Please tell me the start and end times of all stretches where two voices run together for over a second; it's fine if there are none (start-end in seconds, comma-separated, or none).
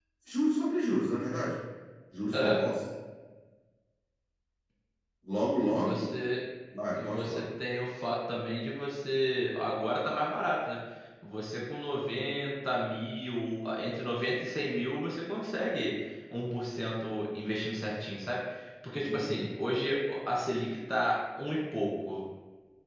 none